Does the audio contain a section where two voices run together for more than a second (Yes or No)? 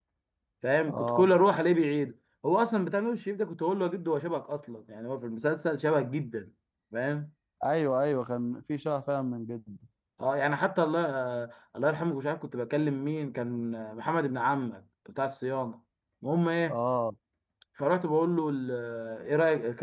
No